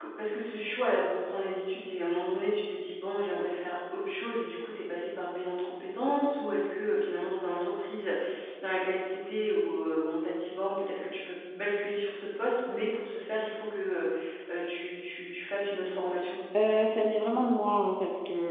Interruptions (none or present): none